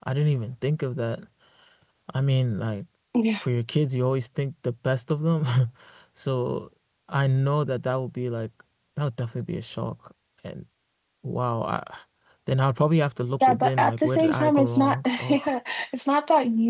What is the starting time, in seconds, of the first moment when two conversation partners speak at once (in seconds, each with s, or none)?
13.4 s